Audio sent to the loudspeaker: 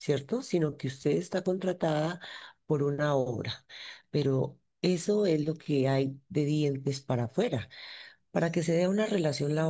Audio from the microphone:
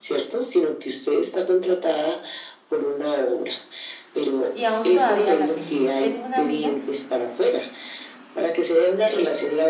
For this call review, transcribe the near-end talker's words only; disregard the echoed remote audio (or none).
y aún todavía la tengo. Tengo una amiga